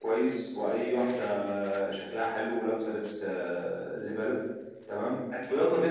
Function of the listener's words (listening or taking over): listening